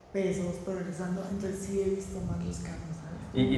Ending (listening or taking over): taking over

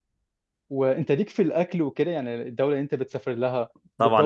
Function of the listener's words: taking over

